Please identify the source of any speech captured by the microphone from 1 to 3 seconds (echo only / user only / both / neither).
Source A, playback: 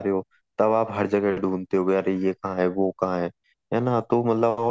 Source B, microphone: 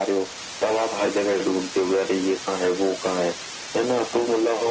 echo only